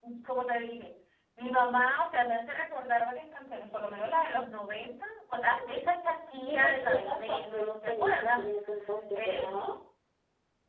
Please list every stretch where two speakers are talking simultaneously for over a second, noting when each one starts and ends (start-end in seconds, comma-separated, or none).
6.5-8.4